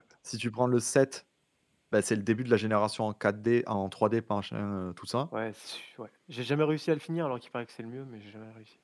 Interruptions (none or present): none